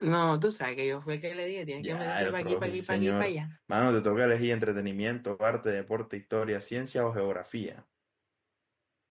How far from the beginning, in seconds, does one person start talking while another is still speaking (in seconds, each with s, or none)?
1.8 s